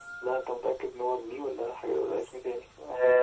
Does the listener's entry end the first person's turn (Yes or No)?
Yes